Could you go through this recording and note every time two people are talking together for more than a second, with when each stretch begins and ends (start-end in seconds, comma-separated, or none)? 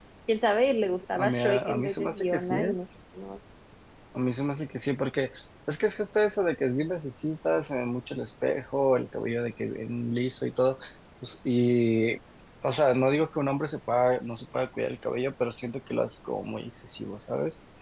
1.1-2.8